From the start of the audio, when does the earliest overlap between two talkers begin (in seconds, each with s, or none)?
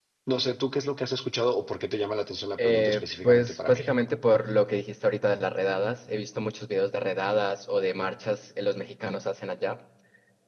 2.6 s